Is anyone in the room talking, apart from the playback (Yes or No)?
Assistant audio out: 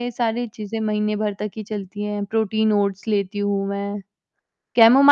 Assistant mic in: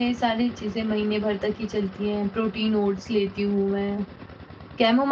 No